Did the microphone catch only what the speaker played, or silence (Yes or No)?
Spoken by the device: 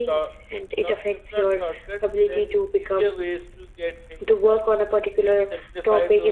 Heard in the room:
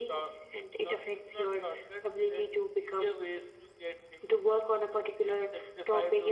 Yes